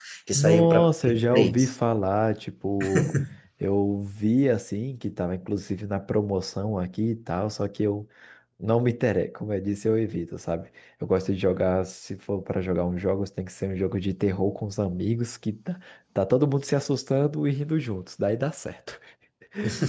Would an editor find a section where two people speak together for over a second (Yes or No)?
Yes